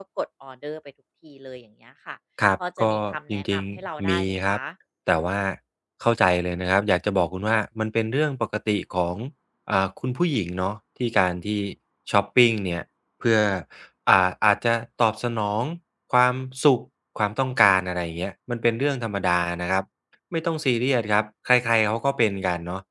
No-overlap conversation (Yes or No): No